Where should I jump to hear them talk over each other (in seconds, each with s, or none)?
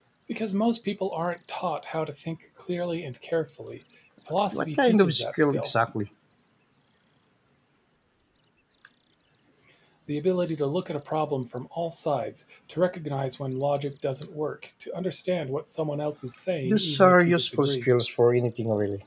4.5 s